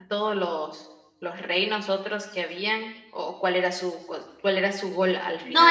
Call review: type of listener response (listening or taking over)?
taking over